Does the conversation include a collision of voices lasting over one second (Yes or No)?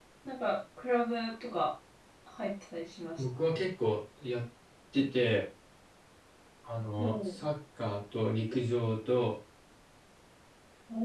No